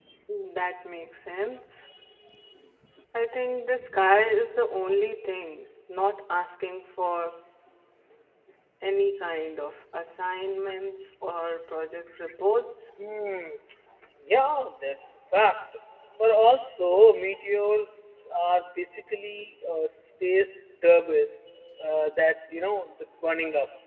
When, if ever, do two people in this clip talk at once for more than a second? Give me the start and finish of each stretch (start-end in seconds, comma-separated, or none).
none